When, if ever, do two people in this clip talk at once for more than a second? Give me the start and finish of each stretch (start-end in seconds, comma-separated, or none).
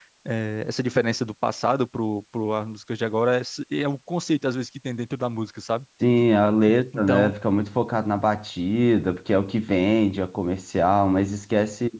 none